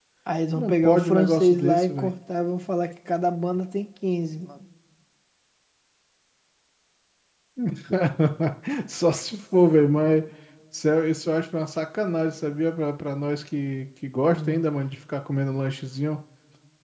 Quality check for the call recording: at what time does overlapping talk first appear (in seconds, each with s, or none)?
0.6 s